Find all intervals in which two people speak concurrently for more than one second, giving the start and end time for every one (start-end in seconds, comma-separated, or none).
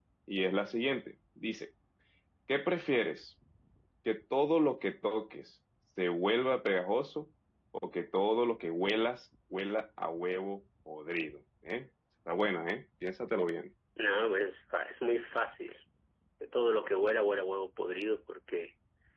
none